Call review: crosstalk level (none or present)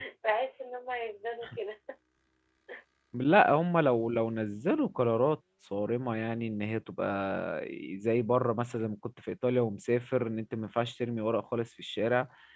none